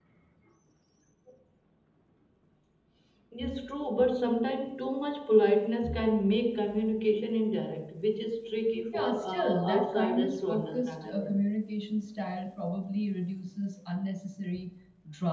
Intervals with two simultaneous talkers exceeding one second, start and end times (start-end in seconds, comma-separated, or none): 8.9-11.2